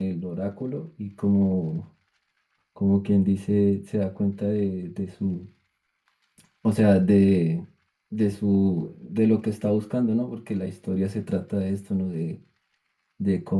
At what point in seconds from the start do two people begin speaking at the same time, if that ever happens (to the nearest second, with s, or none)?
none